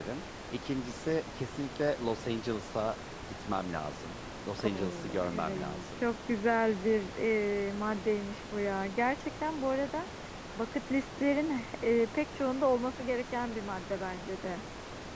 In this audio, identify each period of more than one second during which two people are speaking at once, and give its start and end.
4.6-6.1

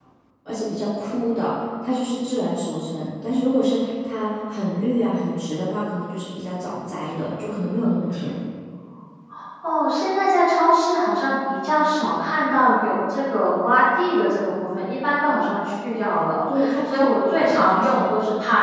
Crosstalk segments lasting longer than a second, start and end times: 16.6-18.1

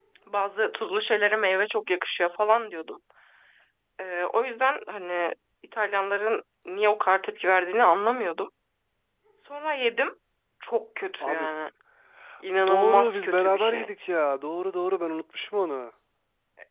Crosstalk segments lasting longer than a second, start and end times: 12.7-13.9

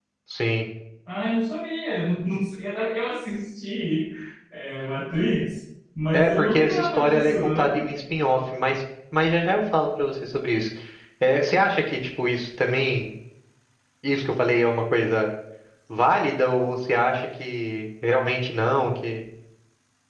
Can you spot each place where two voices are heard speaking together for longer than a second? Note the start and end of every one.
6.1-7.9

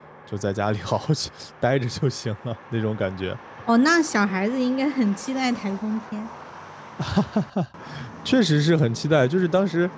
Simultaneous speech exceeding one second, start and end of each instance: none

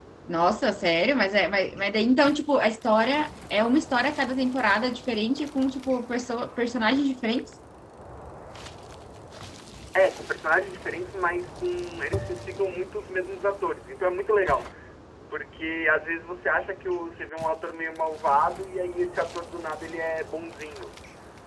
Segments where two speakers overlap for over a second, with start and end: none

